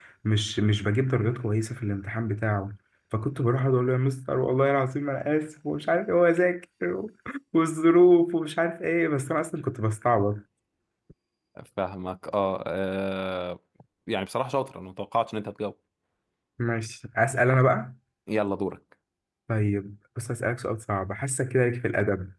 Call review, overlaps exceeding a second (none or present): none